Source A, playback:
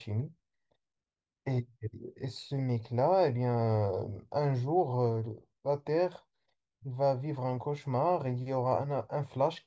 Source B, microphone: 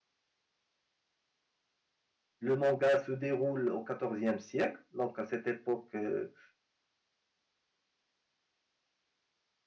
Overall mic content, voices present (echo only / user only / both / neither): user only